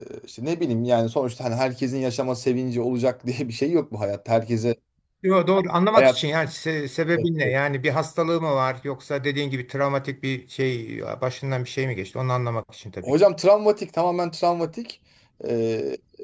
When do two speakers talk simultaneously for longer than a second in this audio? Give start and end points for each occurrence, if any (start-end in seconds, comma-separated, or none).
none